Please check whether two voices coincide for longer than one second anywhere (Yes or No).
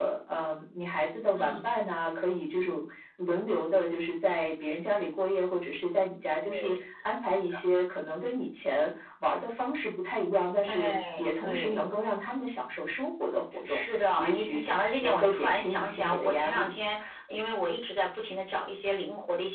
Yes